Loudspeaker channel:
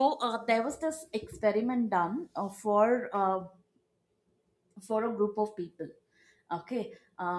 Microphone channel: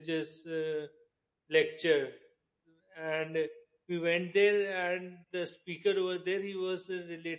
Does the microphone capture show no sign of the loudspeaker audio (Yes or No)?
Yes